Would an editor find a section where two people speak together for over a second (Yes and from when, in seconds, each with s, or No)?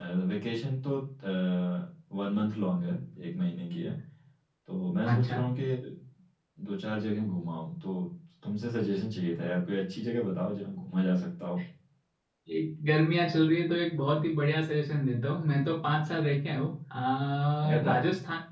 No